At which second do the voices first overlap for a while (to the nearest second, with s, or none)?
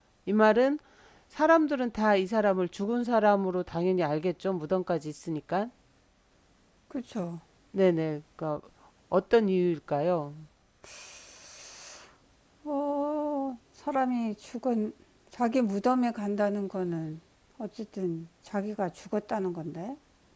none